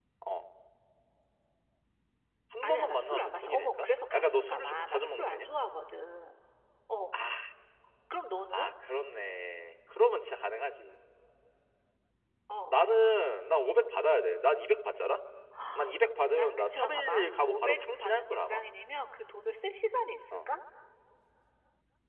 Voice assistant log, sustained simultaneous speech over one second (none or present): present